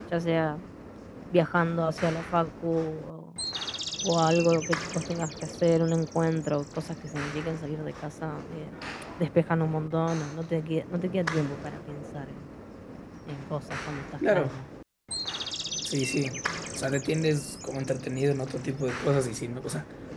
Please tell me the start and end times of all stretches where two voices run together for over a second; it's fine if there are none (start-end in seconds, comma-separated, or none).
none